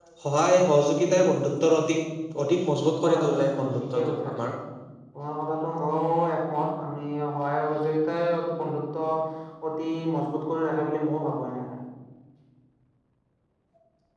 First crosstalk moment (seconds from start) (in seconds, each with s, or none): 3.0 s